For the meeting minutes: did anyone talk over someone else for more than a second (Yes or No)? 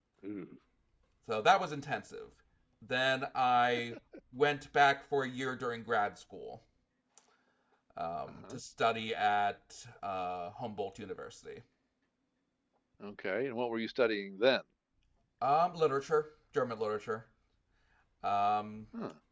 No